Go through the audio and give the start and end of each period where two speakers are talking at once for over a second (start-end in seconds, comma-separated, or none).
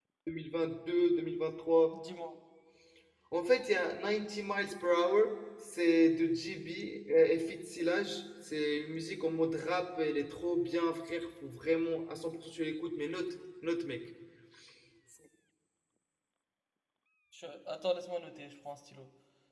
none